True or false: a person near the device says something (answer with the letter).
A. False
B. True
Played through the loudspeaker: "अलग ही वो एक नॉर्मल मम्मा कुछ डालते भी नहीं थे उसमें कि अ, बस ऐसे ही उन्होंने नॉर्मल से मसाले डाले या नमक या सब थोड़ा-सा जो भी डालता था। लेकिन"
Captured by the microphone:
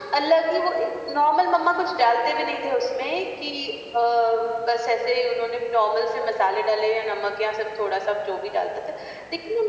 A